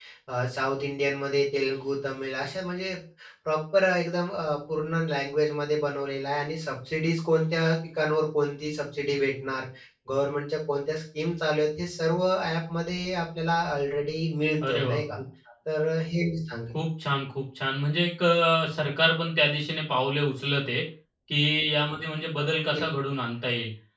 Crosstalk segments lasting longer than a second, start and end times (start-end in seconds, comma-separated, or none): none